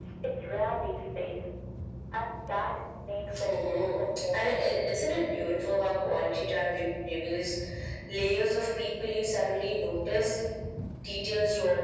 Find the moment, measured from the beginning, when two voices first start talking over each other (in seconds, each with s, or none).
3.3 s